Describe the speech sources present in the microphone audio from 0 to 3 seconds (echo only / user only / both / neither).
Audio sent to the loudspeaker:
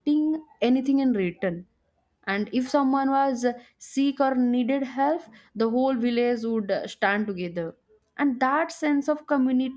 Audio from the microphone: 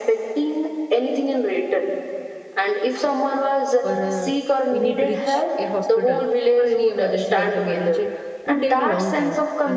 echo only